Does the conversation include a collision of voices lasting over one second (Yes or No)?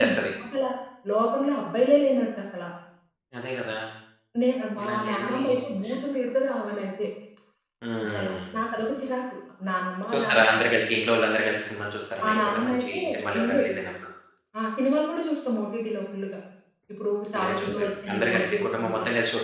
Yes